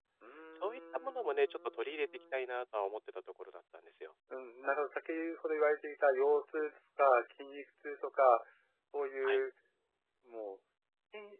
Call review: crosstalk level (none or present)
present